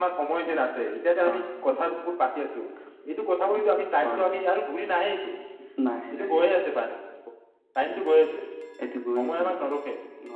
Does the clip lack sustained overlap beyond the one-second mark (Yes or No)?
Yes